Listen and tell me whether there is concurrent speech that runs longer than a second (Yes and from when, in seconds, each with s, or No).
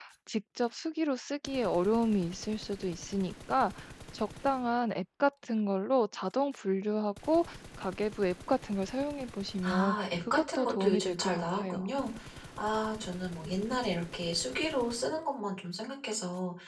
Yes, from 9.6 s